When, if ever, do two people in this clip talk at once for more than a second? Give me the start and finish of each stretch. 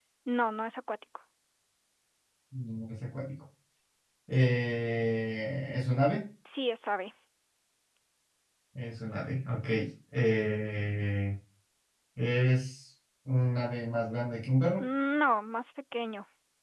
none

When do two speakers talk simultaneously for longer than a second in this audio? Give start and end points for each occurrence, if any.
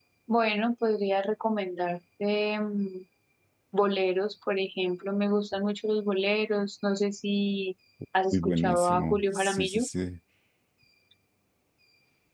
8.3-9.9

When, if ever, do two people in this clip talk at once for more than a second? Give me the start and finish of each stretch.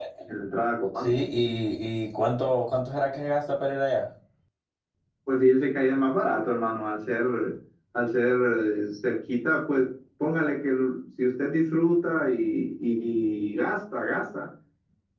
none

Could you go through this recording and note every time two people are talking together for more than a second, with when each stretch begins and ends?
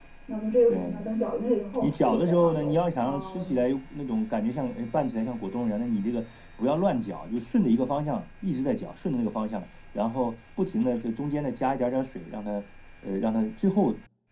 1.8-3.6

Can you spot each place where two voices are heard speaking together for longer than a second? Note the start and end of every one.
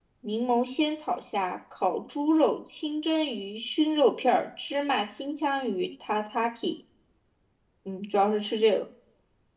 none

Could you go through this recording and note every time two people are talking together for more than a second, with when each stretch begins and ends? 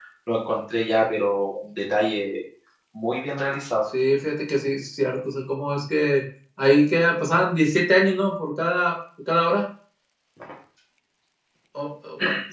none

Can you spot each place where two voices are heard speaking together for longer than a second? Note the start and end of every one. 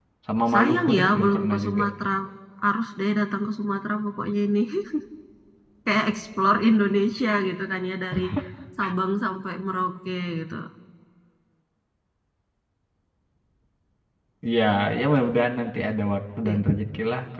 0.5-1.8

